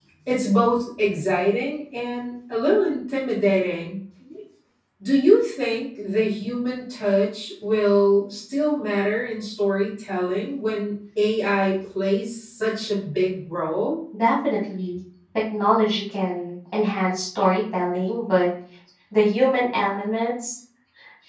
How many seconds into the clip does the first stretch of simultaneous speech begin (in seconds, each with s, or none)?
none